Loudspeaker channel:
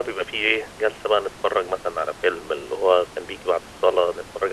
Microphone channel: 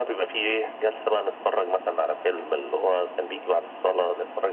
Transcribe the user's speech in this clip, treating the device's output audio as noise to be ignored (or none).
none